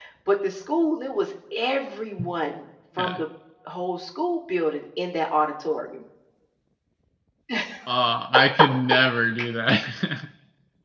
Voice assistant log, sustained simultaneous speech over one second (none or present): none